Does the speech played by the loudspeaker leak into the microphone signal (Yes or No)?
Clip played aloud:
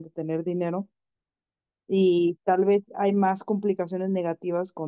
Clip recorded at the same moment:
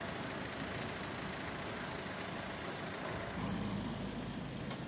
No